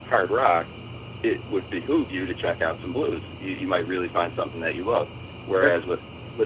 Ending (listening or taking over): listening